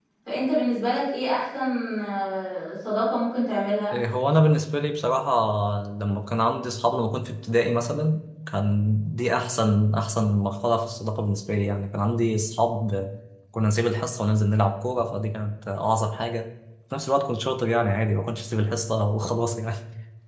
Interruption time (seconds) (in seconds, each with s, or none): none